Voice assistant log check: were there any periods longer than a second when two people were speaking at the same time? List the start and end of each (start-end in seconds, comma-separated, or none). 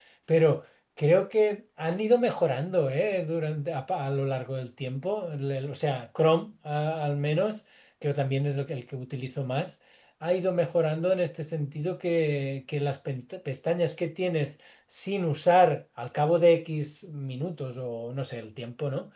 none